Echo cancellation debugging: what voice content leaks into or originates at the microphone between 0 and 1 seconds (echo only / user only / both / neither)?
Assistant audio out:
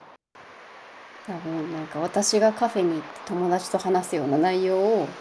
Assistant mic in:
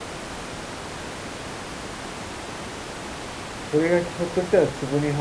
neither